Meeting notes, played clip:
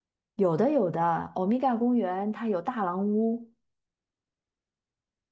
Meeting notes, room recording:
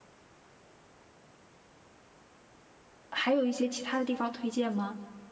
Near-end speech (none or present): present